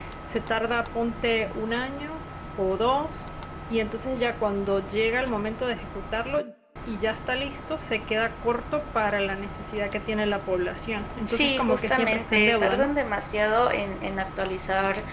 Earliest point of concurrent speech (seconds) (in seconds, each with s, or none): 11.3 s